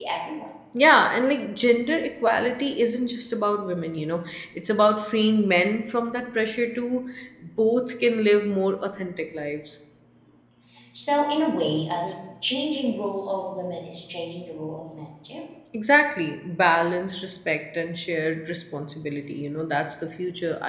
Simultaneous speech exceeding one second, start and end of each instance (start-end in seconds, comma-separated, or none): none